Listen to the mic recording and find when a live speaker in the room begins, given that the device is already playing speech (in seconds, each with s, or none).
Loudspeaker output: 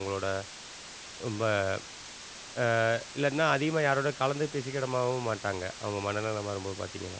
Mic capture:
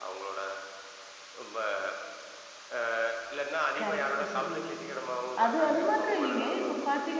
3.8 s